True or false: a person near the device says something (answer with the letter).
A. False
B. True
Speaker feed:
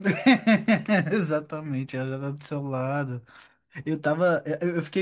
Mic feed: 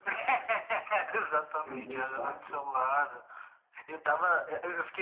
B